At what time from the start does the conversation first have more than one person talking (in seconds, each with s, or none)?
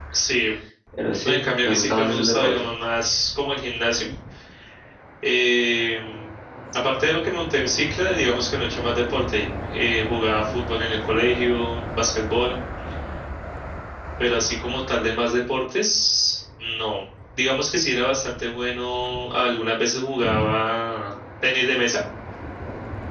1.2 s